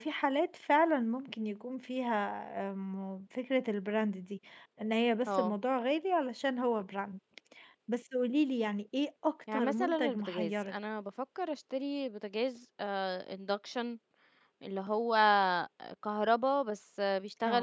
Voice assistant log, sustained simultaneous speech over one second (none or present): present